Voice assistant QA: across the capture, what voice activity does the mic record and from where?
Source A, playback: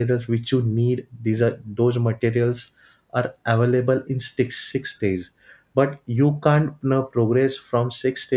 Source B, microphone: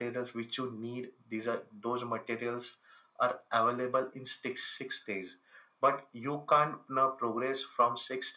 echo only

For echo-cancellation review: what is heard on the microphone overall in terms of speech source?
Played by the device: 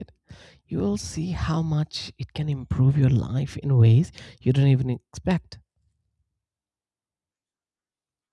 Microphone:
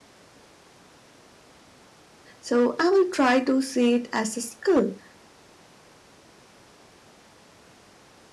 user only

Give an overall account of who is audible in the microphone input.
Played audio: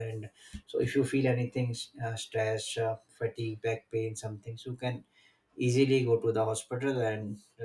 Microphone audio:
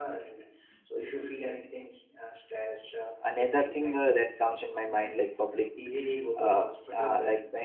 both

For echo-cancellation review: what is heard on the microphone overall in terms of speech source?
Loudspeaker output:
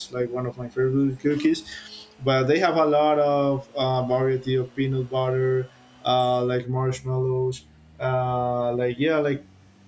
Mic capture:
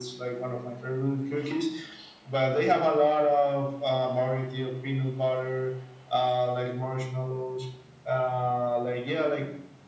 echo only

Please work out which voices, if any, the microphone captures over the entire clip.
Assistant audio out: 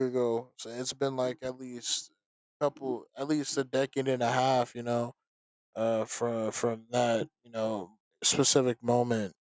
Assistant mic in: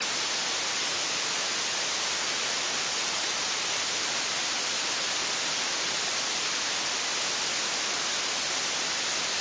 neither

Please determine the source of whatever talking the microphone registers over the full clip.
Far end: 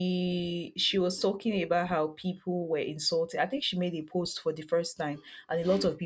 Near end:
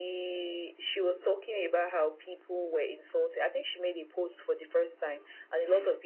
echo only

